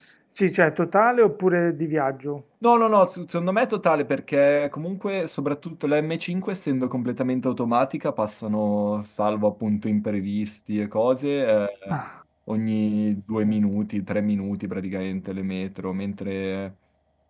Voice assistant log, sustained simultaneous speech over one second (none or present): none